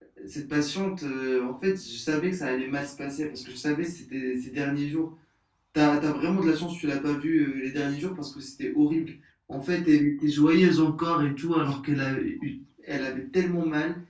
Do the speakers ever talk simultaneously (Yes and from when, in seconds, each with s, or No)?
No